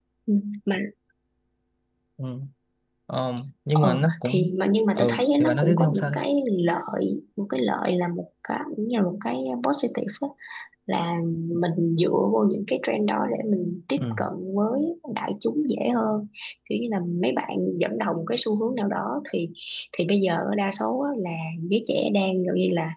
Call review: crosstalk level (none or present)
present